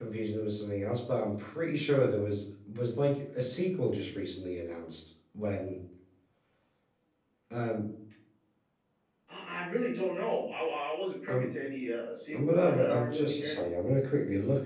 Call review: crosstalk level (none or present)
present